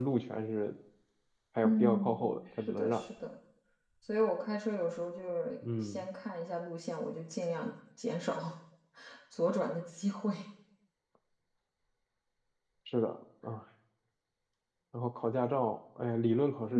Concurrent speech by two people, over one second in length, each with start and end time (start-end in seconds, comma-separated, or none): 1.6-3.0